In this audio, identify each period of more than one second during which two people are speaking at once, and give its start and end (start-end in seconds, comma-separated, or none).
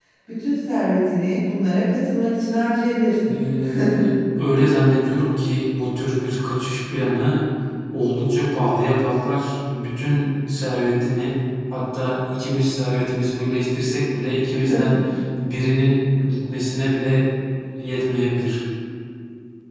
none